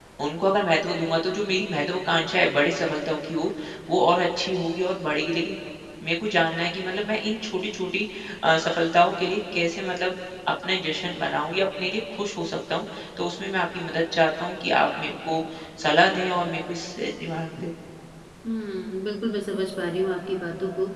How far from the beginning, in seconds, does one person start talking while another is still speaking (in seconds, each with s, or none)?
none